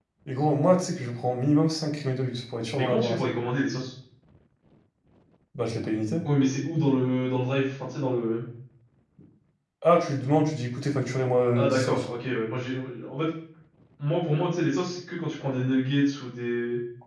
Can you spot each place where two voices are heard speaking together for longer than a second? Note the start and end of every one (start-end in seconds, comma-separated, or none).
none